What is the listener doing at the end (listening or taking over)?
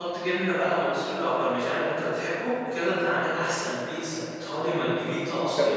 taking over